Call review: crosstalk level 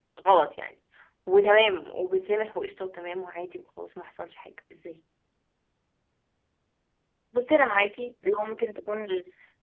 none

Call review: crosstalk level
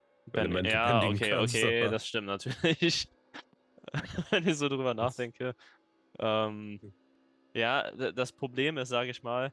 present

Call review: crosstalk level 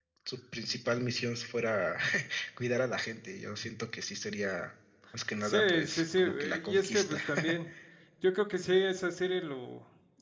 present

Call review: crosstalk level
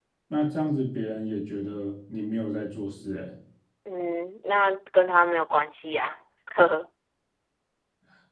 none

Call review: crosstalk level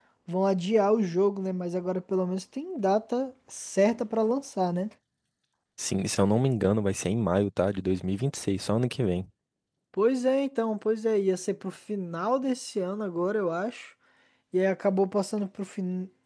none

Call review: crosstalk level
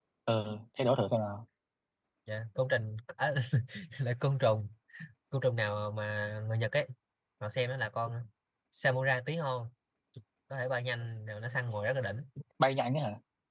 none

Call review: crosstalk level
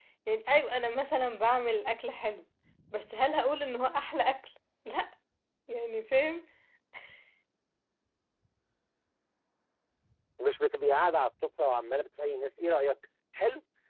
none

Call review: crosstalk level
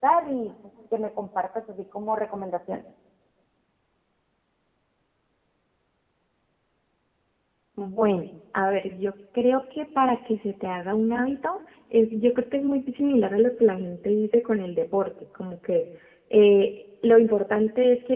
none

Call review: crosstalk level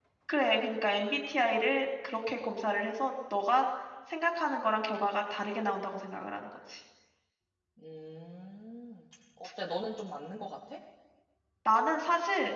none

